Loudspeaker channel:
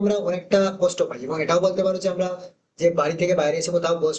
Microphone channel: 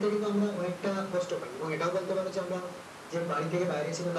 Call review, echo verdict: present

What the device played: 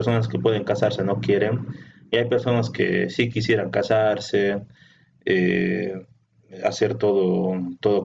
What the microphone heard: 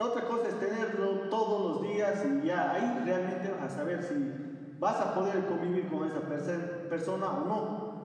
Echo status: none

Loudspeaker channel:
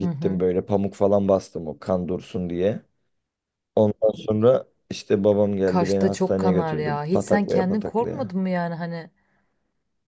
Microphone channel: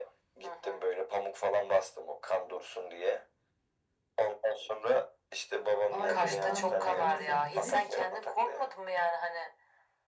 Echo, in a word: present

